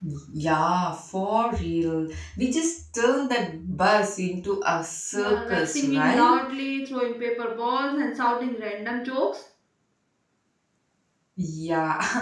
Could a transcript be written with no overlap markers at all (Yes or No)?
No